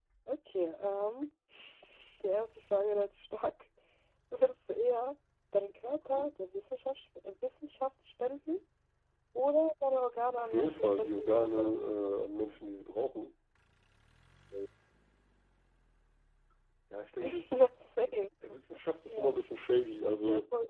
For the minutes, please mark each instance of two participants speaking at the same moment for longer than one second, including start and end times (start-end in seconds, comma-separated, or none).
10.4-11.7